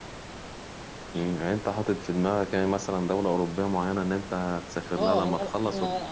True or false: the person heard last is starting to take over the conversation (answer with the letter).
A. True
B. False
A